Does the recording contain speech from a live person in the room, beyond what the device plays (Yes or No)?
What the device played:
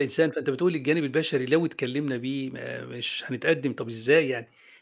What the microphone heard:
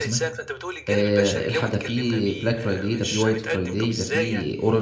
Yes